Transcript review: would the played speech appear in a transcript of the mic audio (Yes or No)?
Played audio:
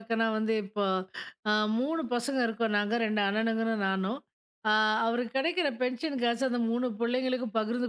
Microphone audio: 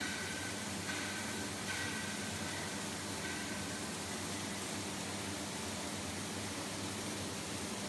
No